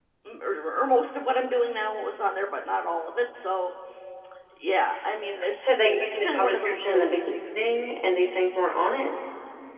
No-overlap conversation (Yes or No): No